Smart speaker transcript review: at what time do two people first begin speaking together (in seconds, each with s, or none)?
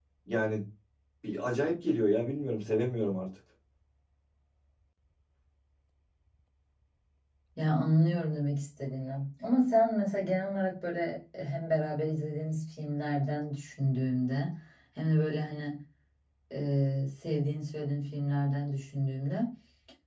none